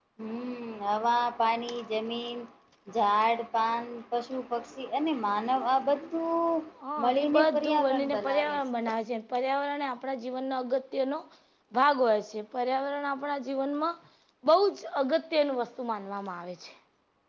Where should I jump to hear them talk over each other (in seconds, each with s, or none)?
7.0 s